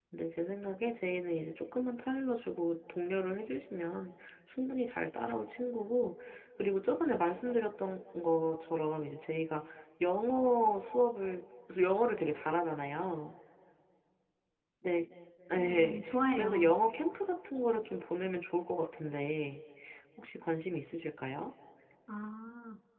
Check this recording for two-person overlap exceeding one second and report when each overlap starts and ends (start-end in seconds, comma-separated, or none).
15.6-16.8